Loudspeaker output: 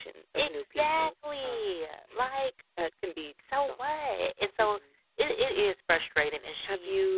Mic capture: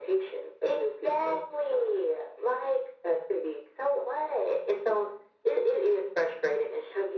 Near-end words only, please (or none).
none